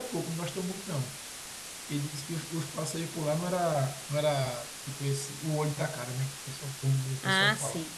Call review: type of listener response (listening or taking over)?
taking over